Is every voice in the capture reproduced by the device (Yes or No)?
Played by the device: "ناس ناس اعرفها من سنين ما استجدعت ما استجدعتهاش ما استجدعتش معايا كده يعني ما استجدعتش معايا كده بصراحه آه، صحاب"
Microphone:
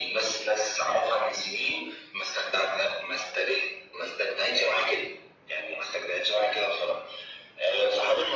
Yes